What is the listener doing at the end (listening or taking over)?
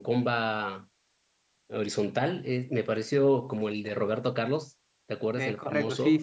taking over